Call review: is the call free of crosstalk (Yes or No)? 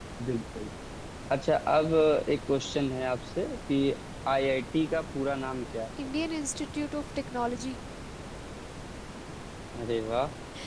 Yes